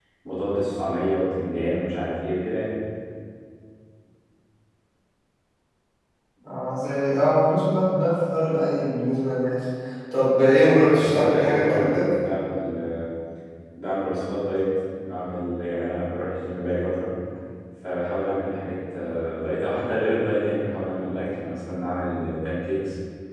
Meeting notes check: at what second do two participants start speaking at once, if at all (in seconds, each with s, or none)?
10.8 s